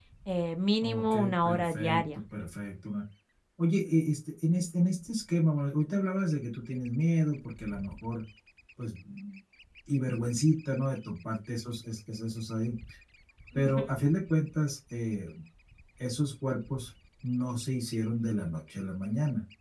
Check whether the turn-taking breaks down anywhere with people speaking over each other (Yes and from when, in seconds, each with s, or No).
Yes, from 0.8 s